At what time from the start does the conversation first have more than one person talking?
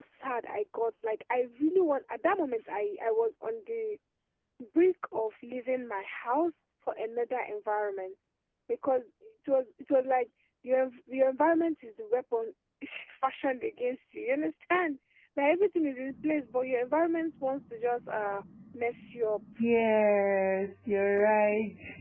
none

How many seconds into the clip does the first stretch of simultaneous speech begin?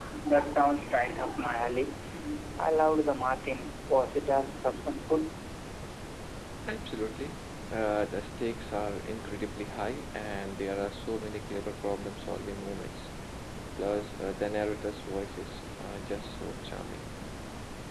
none

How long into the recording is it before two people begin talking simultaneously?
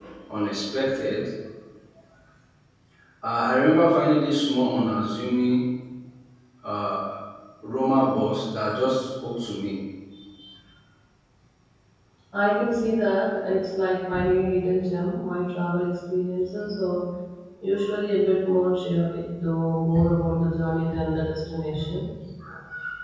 none

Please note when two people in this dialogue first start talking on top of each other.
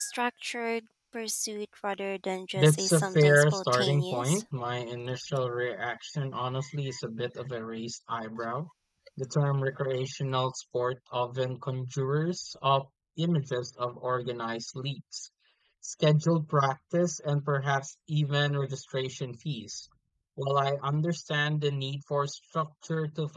3 s

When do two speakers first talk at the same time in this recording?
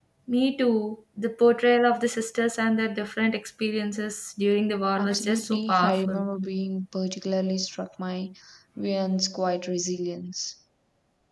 5 s

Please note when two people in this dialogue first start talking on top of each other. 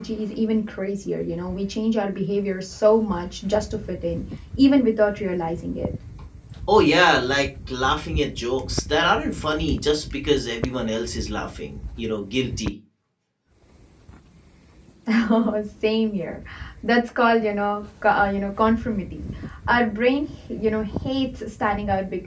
none

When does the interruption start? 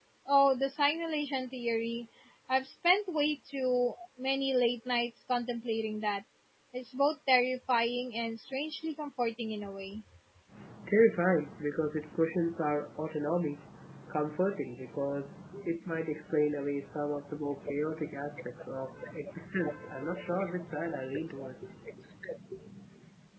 none

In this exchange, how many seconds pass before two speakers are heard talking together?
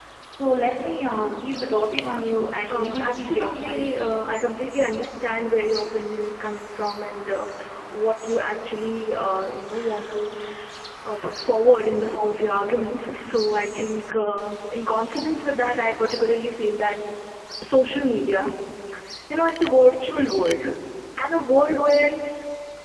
3 s

